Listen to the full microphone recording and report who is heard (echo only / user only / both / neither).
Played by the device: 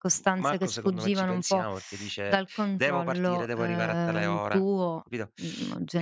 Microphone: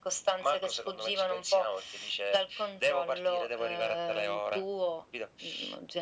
echo only